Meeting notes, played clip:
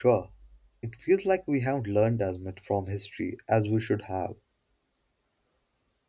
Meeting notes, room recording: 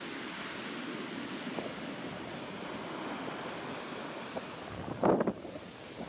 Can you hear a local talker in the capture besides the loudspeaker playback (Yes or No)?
No